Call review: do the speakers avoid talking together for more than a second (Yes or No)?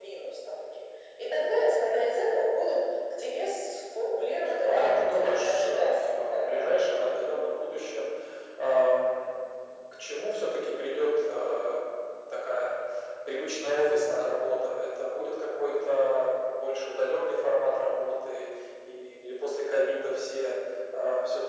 No